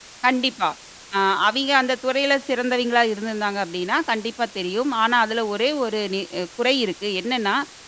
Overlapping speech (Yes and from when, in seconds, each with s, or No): No